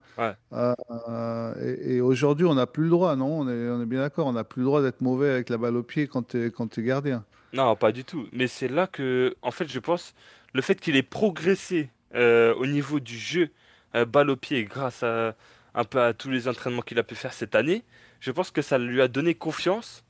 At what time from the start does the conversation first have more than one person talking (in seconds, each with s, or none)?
none